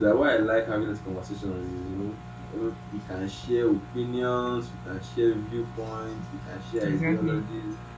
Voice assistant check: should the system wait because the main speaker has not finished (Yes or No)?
Yes